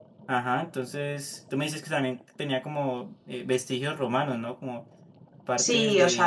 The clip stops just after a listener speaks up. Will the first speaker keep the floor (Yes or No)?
No